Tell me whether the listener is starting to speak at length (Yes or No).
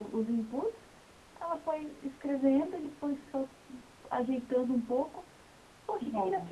No